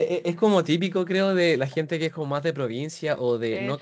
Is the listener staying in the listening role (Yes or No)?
Yes